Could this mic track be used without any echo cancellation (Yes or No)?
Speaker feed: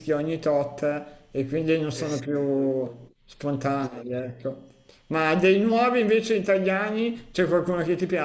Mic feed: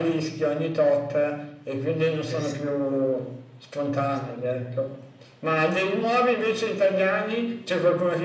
No